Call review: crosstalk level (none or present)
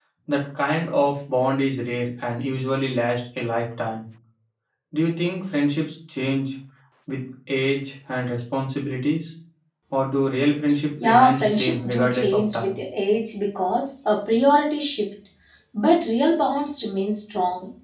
present